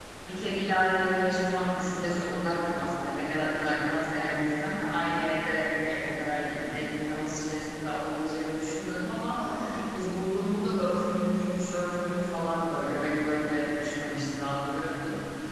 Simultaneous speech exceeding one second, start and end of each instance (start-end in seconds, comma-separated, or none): none